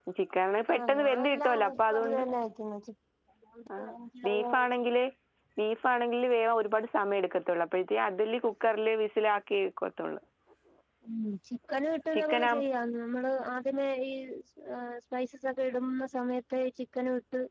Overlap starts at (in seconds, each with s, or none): 0.7 s